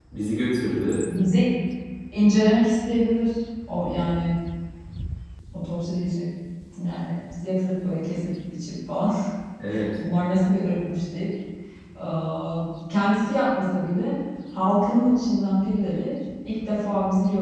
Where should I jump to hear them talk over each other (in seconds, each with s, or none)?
none